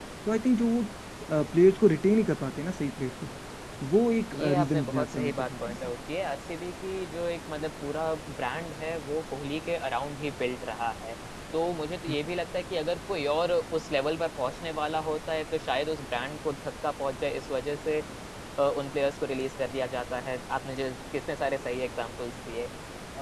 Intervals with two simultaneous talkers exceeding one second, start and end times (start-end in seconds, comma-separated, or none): 4.3-5.8